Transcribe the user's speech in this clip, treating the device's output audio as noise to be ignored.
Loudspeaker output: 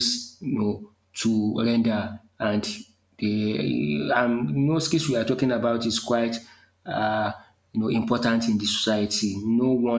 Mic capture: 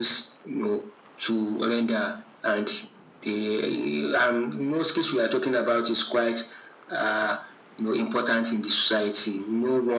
none

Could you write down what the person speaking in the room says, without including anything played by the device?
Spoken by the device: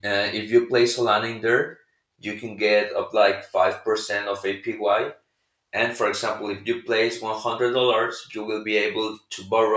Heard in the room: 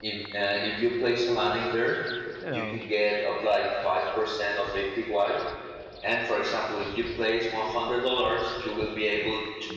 no.

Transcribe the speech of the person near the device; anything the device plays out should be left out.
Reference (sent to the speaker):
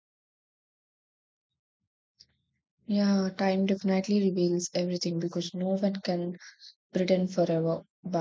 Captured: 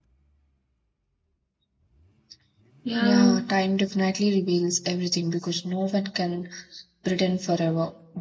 Yeah,

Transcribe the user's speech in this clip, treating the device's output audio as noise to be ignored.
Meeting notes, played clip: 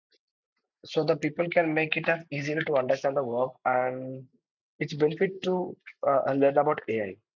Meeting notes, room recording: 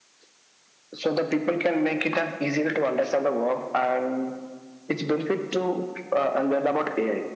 none

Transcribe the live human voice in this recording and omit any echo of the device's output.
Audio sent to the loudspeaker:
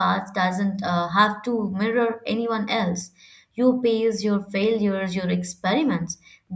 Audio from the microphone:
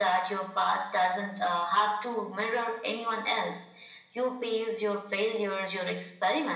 none

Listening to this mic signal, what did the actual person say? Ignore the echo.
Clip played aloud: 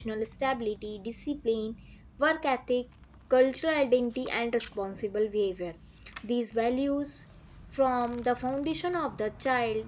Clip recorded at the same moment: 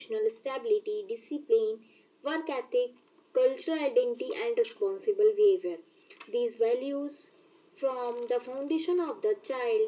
none

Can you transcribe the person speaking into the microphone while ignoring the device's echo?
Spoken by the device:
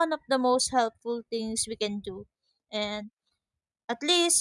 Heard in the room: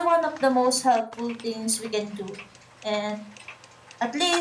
none

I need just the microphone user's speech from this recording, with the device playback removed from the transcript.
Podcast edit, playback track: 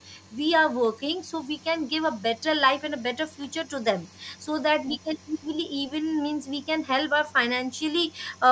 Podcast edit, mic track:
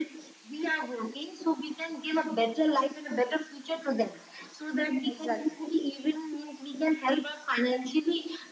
exactly

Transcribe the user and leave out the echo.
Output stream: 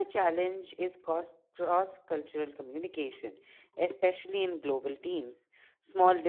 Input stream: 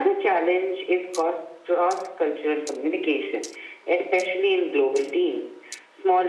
none

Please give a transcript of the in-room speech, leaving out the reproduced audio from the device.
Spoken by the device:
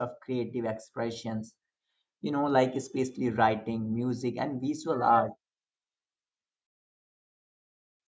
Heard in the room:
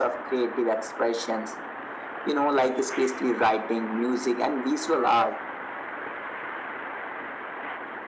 none

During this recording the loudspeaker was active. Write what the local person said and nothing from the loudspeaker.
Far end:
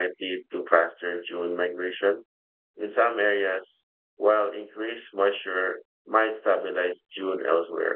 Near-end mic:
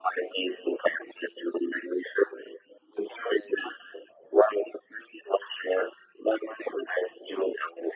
none

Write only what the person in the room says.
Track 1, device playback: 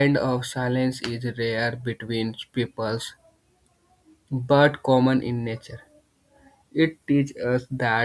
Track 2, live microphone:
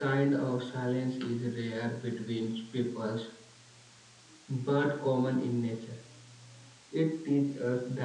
none

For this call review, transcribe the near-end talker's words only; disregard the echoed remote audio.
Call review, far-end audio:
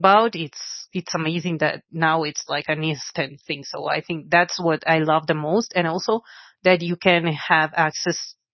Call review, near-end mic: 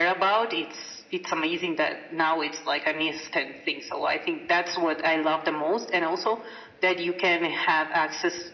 none

